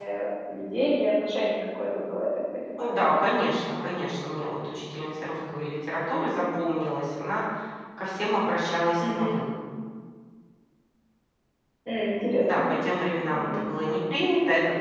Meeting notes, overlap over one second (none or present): none